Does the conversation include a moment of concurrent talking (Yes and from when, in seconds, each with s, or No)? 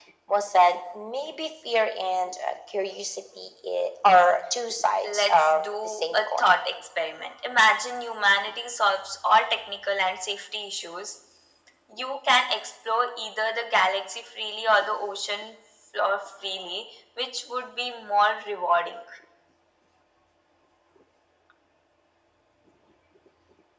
Yes, from 5.0 s